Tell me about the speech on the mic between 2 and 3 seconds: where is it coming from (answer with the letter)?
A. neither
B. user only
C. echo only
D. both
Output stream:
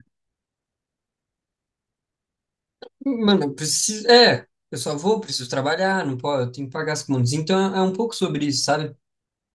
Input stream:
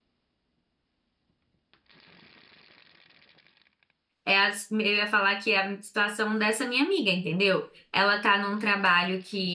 A